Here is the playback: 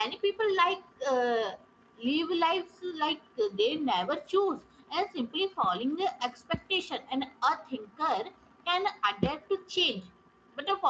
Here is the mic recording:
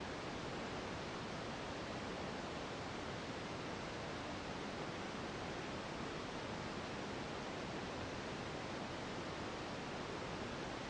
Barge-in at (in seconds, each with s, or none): none